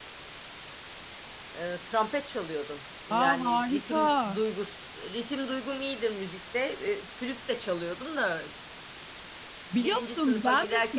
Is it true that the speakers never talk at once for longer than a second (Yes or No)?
No